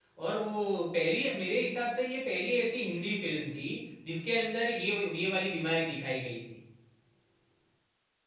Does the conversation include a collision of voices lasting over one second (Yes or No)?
No